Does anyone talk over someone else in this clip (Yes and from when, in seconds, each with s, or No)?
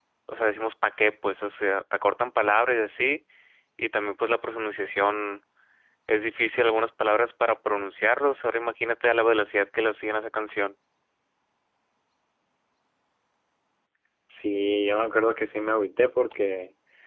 No